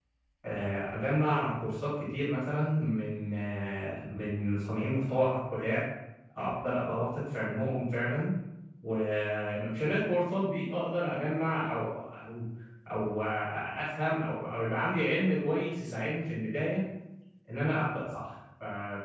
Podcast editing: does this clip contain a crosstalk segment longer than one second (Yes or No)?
No